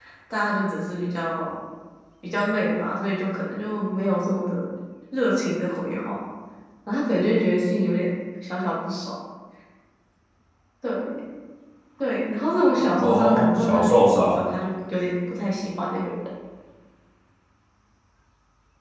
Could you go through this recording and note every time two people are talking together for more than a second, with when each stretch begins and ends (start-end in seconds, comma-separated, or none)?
13.0-14.4